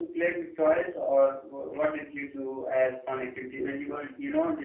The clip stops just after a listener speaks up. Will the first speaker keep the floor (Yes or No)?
Yes